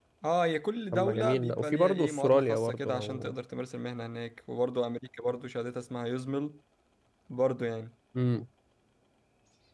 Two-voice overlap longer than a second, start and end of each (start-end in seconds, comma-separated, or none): 0.9-3.3